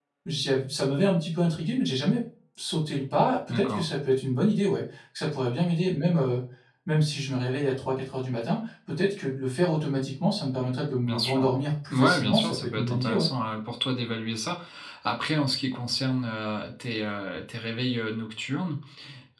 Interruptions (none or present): present